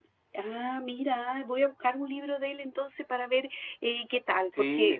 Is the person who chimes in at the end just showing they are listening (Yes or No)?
No